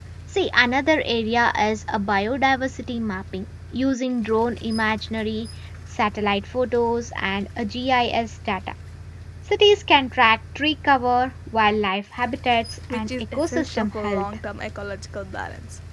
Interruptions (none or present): present